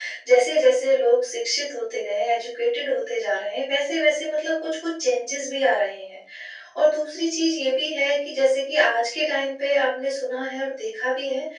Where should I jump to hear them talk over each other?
none

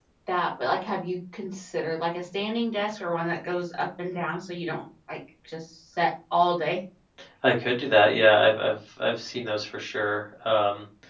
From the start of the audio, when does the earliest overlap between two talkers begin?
none

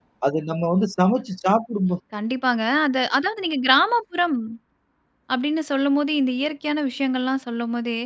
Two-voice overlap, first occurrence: none

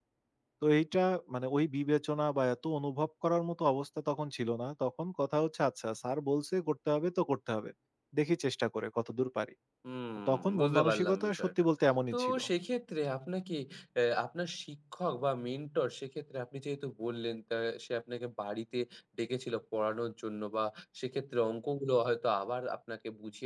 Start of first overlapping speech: 10.3 s

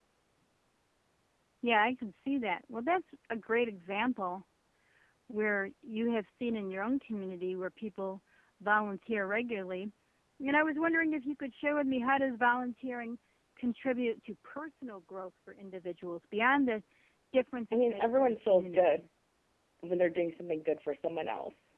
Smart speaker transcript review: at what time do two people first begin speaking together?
17.7 s

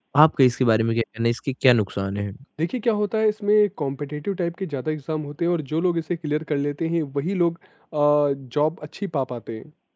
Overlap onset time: none

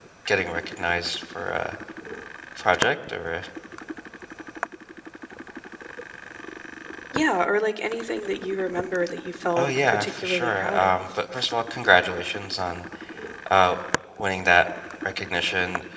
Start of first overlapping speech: 9.6 s

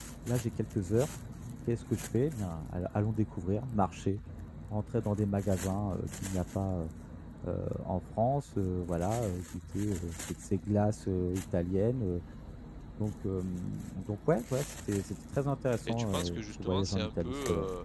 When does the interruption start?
15.9 s

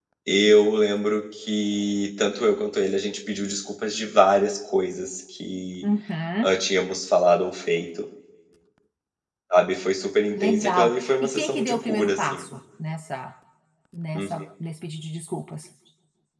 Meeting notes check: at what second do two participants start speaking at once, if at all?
10.3 s

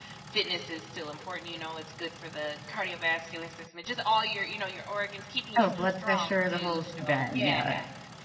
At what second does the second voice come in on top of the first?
5.6 s

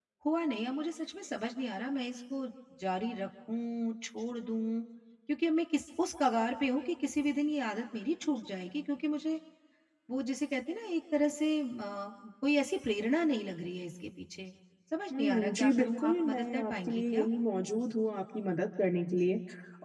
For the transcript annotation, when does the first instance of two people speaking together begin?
15.2 s

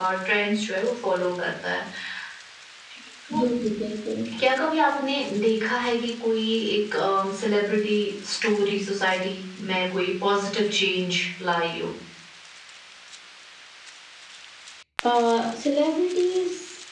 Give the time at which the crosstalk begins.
none

